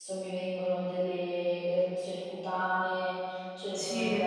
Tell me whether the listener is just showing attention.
Yes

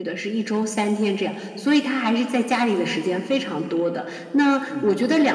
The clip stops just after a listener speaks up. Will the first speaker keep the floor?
Yes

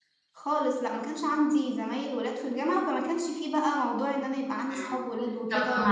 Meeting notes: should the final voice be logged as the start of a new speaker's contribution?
Yes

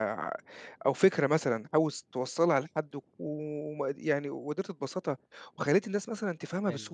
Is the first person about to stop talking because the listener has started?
Yes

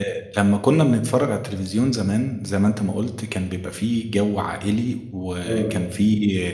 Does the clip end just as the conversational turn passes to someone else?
No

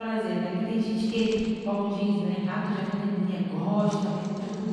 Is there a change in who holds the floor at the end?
No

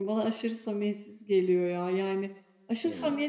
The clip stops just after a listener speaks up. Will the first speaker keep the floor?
Yes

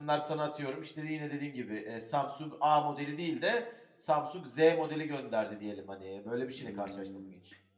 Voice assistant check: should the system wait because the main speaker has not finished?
No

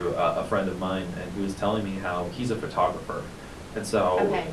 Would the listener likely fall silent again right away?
Yes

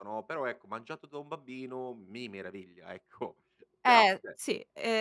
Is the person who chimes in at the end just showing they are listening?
No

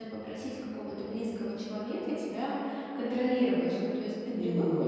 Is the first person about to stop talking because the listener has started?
No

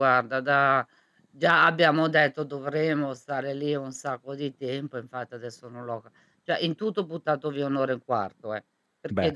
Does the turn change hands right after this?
No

